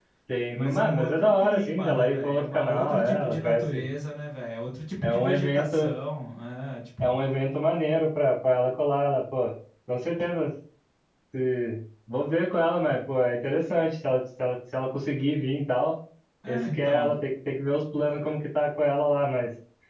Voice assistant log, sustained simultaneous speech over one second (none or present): present